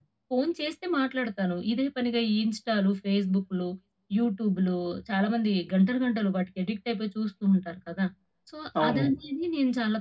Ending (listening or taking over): listening